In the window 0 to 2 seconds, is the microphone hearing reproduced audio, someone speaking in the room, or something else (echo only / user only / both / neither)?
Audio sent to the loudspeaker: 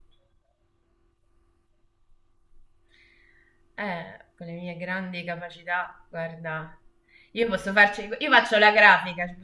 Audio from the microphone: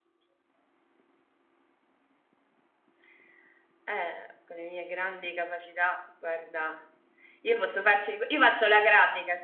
neither